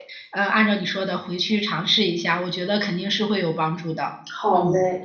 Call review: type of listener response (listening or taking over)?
taking over